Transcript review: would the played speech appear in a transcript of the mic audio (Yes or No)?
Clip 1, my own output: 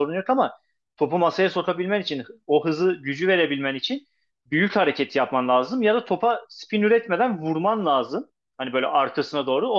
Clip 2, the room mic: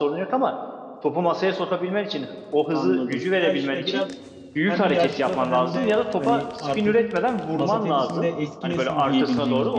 Yes